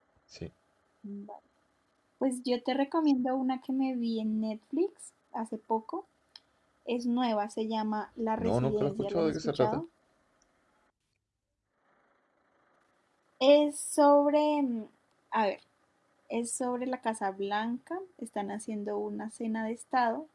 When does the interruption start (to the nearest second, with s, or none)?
8 s